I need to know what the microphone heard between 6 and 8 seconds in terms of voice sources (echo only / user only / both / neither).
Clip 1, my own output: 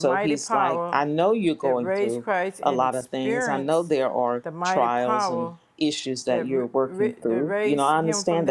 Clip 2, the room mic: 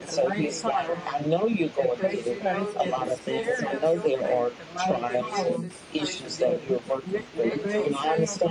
both